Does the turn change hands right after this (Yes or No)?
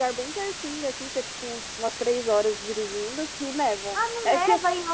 Yes